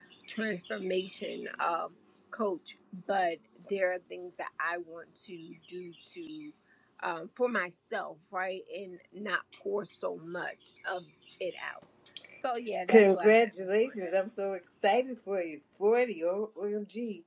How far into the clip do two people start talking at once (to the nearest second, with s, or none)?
13 s